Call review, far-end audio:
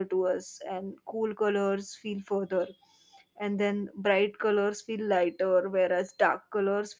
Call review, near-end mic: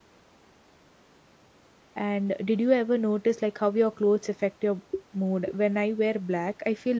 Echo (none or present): none